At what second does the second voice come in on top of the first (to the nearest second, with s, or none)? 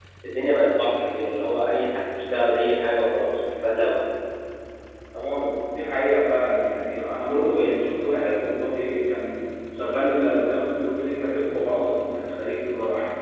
none